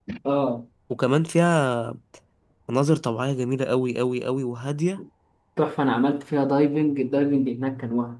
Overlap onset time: none

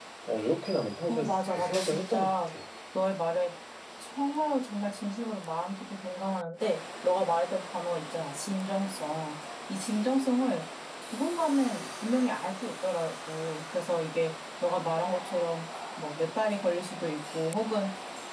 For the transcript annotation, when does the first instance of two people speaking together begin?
1.1 s

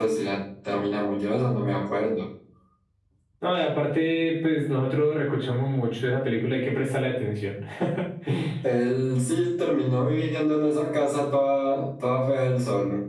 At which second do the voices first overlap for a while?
none

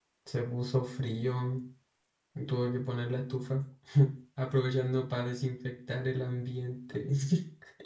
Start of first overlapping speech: none

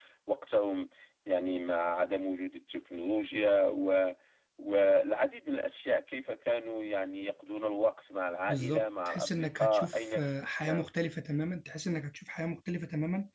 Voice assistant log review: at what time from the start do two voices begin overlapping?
8.5 s

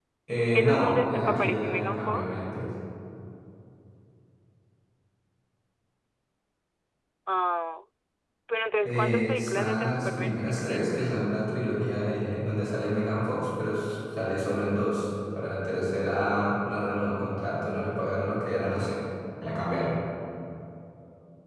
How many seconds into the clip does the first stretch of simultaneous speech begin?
0.6 s

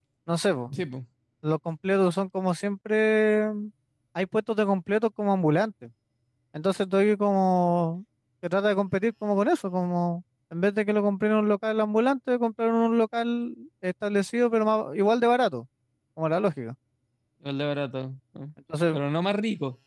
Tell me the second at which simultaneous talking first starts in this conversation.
none

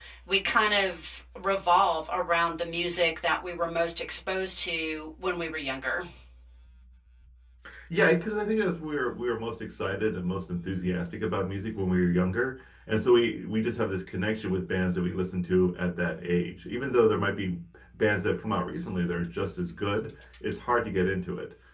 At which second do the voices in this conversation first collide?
none

